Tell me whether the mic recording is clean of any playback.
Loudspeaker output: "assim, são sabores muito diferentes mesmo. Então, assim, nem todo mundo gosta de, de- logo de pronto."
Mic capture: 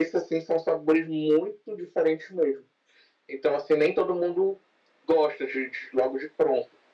No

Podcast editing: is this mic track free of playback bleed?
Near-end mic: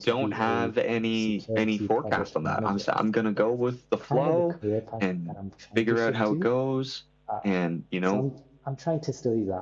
No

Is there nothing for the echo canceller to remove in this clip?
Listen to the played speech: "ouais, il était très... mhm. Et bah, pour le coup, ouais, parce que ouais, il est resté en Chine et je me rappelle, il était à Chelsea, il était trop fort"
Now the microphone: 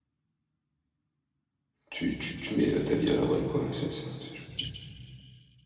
Yes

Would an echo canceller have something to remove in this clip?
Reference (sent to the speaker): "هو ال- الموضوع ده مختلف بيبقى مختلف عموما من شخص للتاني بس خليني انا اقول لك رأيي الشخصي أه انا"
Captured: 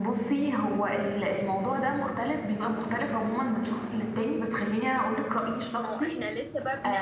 Yes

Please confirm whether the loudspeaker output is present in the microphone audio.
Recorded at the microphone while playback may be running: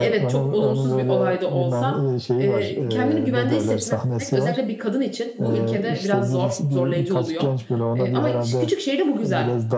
Yes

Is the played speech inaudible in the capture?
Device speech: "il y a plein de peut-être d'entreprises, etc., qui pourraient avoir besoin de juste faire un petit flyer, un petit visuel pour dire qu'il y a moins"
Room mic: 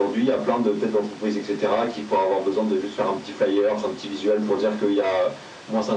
No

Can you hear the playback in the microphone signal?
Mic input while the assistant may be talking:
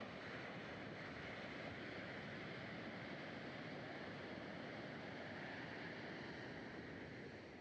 No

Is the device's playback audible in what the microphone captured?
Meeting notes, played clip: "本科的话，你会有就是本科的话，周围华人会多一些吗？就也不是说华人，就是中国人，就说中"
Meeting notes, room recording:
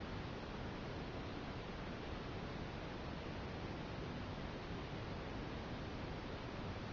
No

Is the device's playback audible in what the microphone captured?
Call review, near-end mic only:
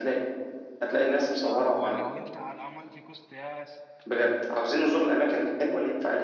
Yes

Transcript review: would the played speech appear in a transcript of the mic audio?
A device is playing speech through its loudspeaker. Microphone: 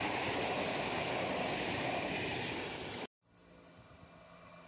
No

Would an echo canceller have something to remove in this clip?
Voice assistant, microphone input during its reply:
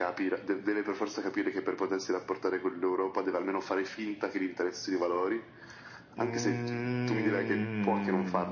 Yes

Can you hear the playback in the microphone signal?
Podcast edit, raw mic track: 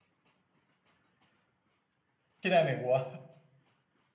No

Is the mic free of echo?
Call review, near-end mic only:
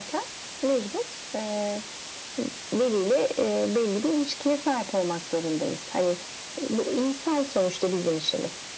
No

